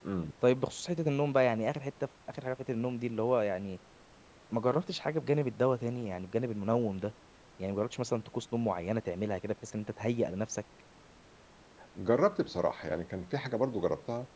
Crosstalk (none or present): none